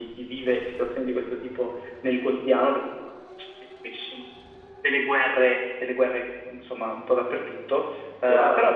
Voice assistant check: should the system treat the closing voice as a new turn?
No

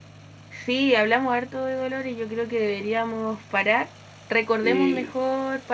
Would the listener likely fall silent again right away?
Yes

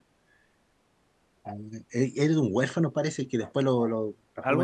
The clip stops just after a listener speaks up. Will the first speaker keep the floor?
Yes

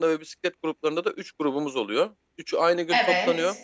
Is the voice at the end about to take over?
No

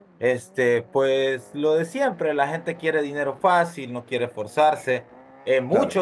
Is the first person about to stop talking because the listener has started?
No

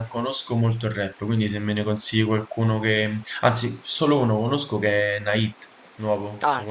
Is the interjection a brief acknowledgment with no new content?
No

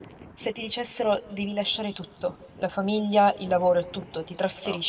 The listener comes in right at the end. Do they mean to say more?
No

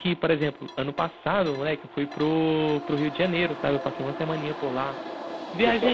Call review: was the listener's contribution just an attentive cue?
Yes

